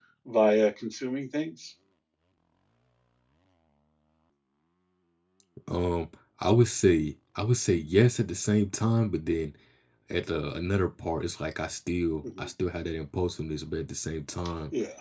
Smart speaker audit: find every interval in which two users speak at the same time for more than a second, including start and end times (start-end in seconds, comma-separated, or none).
none